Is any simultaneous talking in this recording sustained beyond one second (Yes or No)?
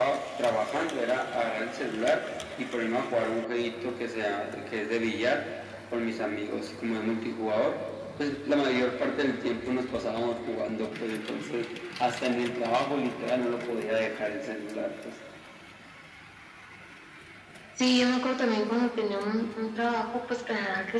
No